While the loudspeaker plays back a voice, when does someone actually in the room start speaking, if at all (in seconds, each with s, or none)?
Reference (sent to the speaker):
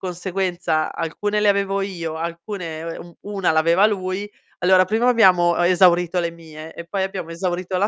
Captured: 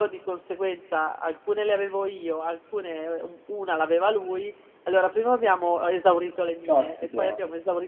6.6 s